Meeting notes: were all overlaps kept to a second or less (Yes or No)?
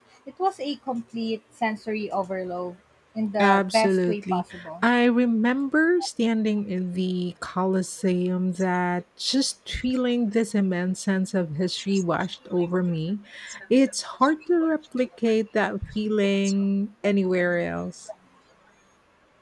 No